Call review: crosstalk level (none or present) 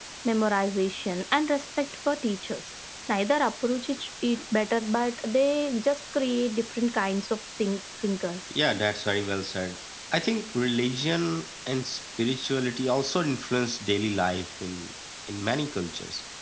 none